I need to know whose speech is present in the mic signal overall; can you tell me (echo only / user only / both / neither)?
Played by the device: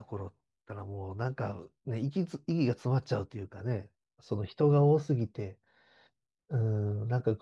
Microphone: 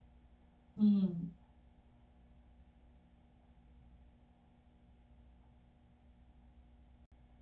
user only